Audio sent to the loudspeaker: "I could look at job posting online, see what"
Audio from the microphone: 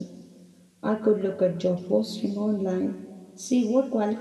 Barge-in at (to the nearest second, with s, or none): none